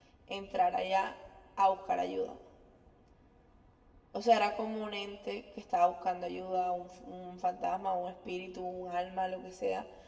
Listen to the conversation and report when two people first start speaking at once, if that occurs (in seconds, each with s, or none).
none